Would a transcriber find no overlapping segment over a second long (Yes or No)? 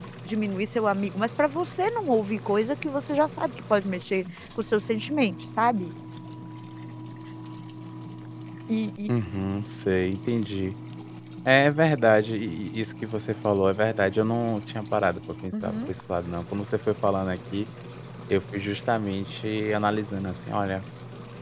Yes